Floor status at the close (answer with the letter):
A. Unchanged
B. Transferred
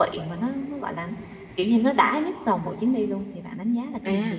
B